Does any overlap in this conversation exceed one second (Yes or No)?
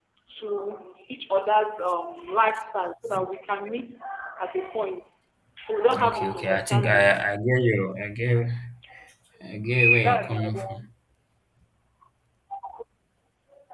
Yes